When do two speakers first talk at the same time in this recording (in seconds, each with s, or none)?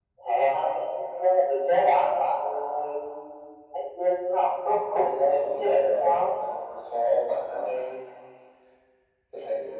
4.8 s